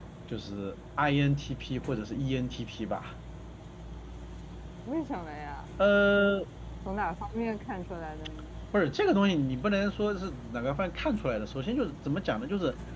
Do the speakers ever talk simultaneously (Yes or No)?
No